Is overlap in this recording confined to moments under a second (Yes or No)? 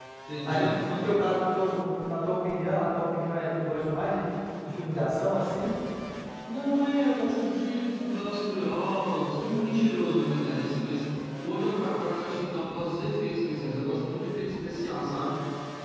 Yes